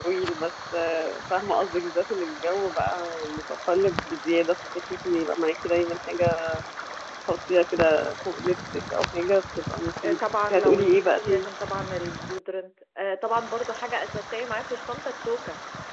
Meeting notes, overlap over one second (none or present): present